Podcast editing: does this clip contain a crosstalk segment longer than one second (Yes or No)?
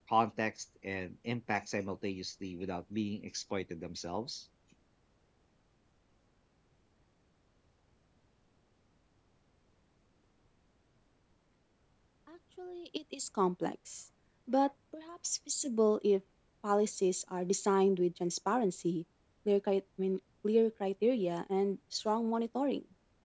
No